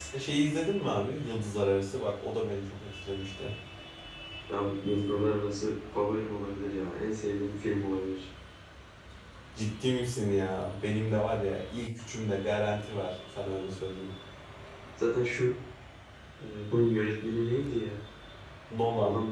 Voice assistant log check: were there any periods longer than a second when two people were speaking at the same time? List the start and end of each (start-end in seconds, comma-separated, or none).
none